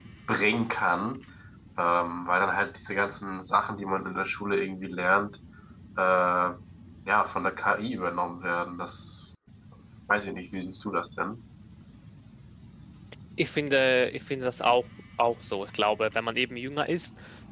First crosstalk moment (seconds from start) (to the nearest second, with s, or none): none